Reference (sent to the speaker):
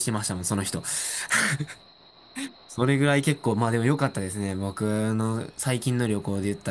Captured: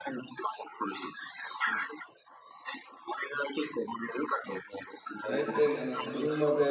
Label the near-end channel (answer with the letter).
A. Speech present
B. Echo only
A